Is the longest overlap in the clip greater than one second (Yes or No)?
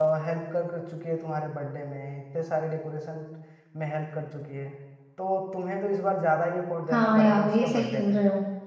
Yes